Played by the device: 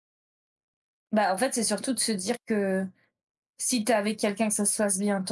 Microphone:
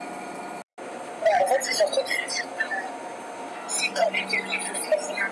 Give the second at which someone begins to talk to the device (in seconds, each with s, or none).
none